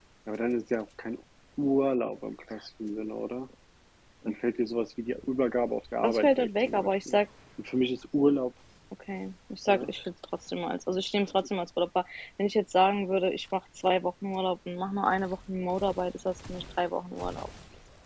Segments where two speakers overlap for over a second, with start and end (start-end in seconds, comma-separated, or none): 6.0-7.2